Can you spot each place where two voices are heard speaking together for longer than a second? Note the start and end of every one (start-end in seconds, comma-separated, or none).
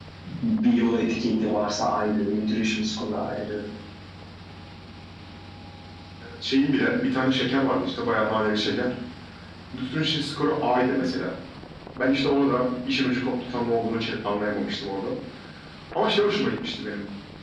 none